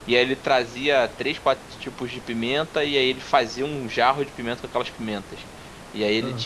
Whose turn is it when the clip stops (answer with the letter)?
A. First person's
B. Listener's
A